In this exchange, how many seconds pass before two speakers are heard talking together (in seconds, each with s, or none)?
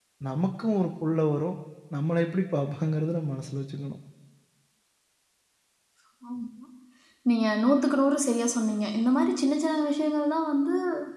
none